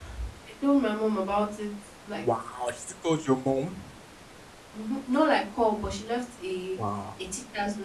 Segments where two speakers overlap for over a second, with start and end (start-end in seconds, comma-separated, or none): none